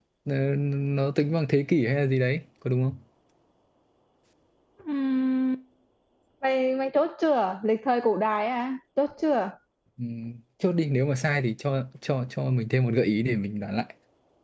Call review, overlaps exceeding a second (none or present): none